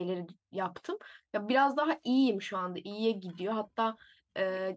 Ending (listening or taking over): listening